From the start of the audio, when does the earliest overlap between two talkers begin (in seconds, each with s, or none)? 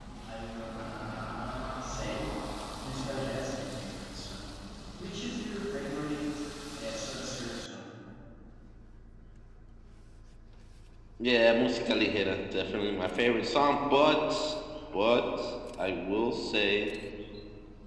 none